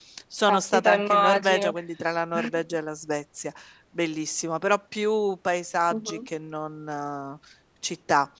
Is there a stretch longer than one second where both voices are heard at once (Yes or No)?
Yes